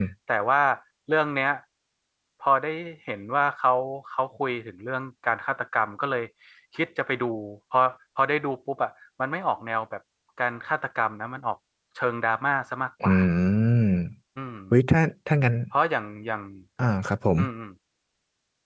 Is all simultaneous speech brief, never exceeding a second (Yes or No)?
Yes